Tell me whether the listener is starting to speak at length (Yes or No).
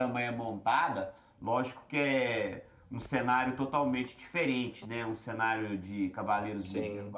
No